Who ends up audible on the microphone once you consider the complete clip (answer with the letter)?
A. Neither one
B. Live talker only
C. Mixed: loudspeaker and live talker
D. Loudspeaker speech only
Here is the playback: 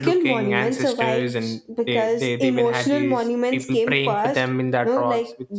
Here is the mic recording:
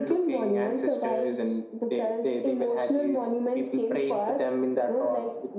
D